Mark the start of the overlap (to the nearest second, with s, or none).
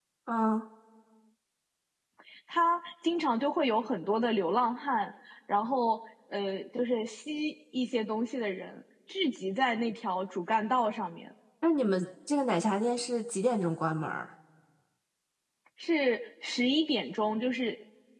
none